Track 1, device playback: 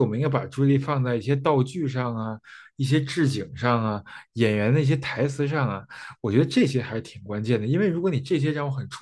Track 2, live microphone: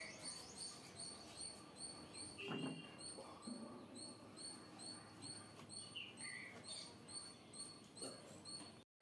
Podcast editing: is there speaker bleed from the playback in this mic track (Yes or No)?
No